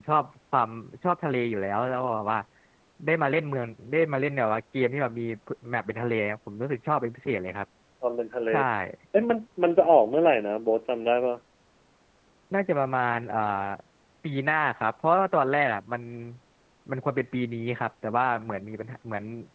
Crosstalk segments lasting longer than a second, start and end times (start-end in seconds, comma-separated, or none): none